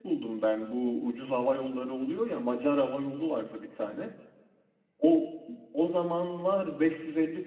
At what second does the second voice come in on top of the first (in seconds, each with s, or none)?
none